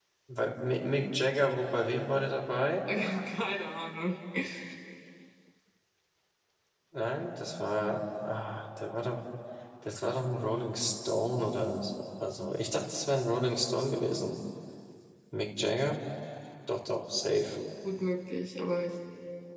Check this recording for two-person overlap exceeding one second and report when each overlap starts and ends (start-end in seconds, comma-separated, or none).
none